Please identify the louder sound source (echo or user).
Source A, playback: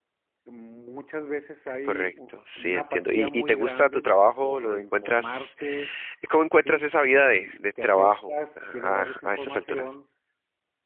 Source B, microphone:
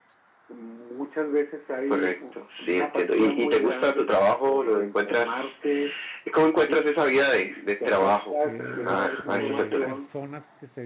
echo